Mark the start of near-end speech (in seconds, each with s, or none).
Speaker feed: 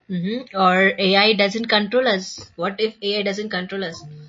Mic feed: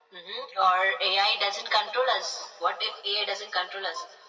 none